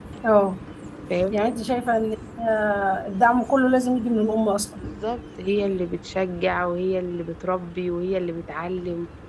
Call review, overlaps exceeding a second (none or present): none